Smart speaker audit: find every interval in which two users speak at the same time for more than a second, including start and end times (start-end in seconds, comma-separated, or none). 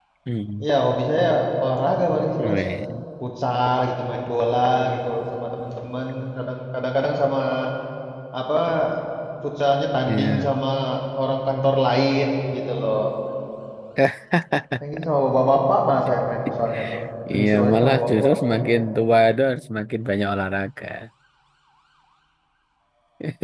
17.3-18.8